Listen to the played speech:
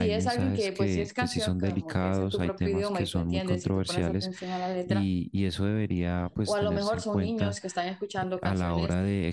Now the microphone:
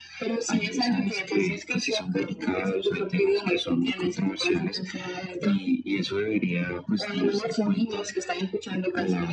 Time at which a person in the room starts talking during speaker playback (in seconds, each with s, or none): none